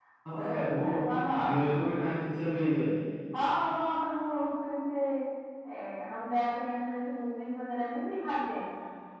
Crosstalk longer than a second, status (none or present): none